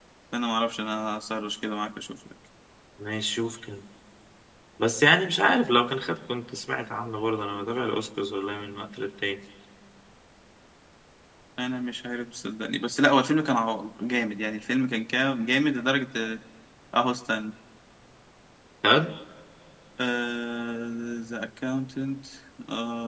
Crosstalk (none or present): none